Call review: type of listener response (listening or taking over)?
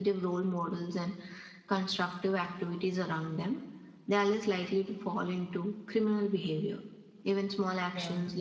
listening